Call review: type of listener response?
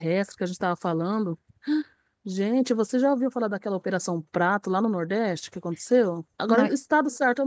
listening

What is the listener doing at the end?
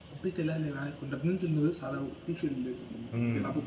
taking over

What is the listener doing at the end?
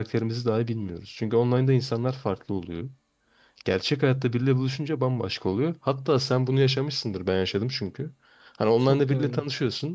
listening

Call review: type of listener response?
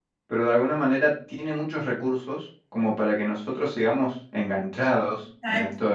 taking over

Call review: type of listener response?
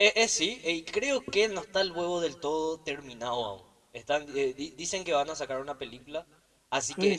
taking over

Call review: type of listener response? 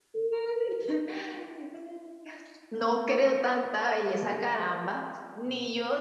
listening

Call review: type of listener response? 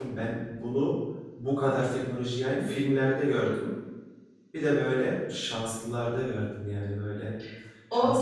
taking over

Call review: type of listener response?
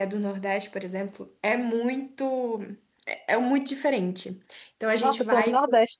taking over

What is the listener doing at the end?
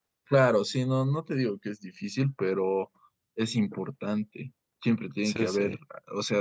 listening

